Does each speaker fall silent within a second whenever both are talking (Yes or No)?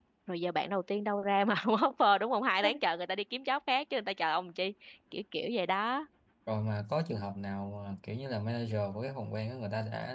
Yes